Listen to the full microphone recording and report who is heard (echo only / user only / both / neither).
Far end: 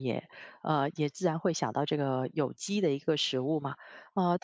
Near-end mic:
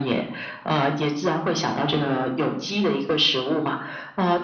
echo only